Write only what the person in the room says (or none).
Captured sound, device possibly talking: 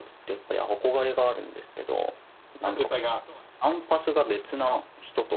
タフさがそうね